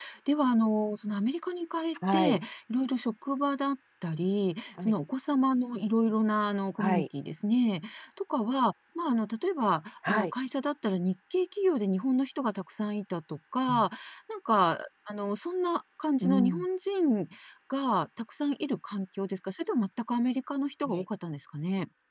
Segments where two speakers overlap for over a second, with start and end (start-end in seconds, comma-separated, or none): none